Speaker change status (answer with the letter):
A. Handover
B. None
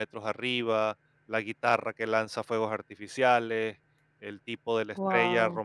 B